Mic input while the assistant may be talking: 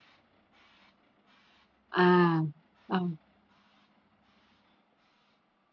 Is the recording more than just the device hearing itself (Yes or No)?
Yes